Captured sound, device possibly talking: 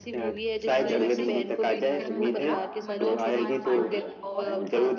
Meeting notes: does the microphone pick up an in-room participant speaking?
Yes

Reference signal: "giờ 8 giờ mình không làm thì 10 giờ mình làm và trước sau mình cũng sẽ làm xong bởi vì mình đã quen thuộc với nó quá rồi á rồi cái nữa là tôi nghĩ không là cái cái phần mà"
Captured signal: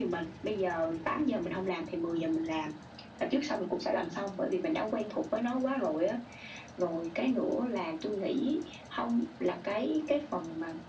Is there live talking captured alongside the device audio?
No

